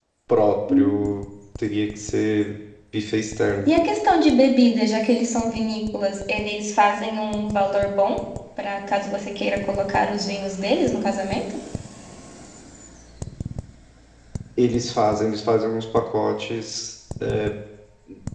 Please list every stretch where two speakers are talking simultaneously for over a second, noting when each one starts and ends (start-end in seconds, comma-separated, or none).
none